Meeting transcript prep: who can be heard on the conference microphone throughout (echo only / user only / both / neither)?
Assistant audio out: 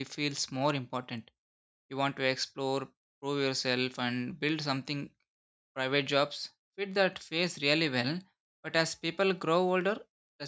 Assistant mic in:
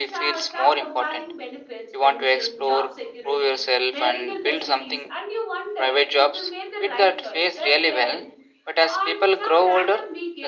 both